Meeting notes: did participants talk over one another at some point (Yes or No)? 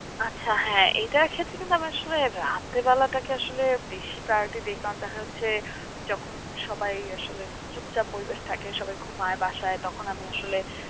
No